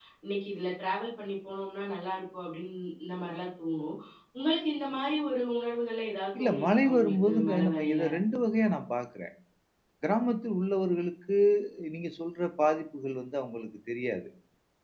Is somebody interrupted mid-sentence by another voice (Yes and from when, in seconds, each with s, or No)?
Yes, from 6.3 s